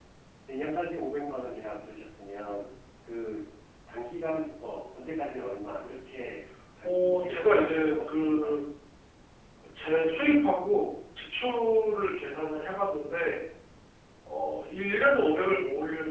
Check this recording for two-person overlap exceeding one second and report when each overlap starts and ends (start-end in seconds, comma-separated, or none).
6.8-8.6